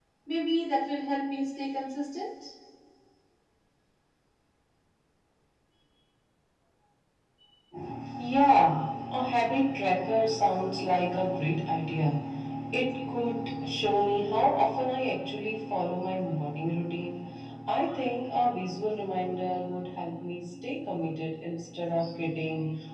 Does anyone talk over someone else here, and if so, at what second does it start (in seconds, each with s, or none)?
none